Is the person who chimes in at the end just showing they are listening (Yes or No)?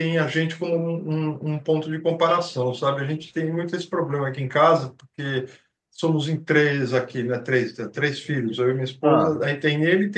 Yes